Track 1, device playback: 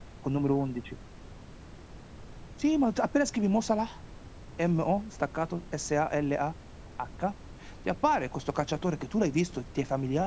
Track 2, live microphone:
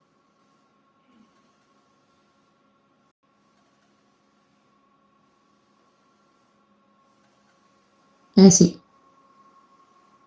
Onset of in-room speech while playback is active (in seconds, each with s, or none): 8.3 s